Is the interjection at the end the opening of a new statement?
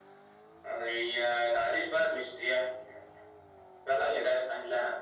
No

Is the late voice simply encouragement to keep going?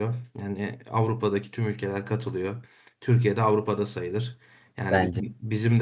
Yes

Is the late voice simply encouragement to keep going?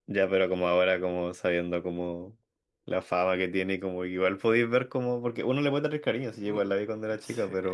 No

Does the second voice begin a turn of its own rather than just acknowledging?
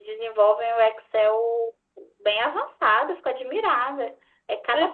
Yes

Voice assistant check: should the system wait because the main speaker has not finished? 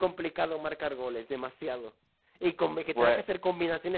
Yes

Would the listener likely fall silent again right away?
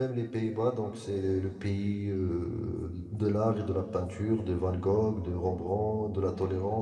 Yes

